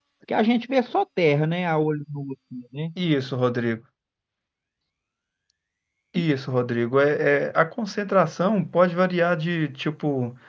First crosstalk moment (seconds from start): none

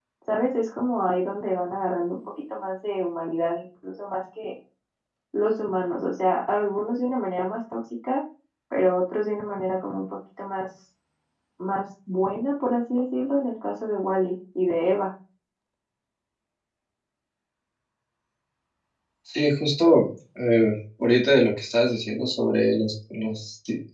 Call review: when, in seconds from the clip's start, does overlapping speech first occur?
none

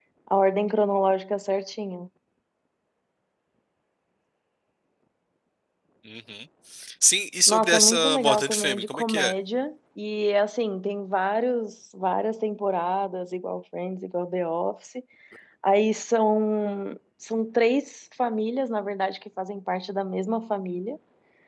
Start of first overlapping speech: 7.5 s

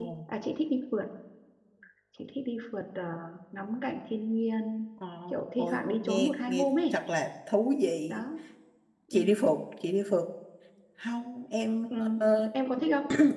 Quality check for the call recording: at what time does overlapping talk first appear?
5.6 s

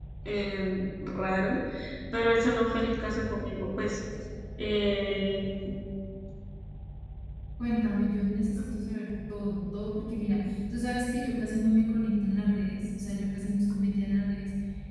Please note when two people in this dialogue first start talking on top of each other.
none

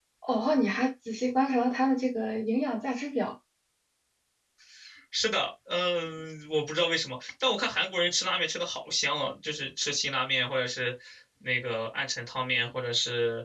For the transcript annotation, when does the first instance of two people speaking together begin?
none

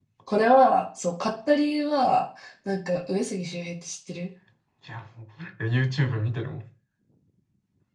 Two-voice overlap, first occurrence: none

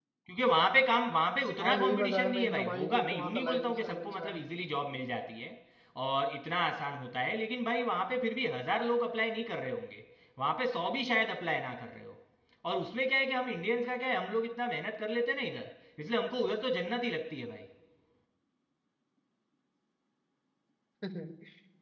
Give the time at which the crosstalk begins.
1.6 s

